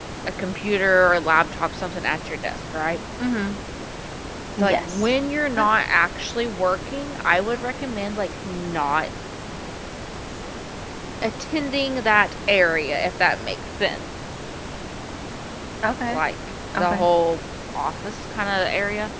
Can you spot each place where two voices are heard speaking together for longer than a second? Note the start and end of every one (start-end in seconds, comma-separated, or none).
none